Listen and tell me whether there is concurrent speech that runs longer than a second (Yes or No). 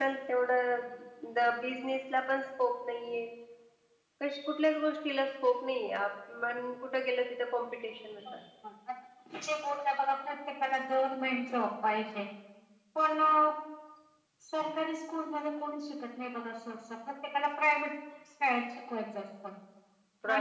No